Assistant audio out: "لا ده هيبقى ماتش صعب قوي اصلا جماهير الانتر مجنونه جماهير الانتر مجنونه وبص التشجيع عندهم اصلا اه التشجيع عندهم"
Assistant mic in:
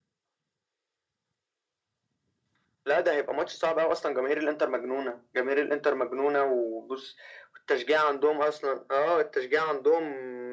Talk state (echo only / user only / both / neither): echo only